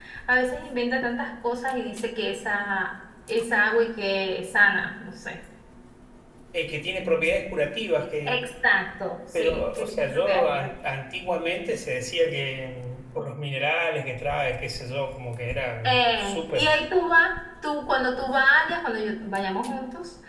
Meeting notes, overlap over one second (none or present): present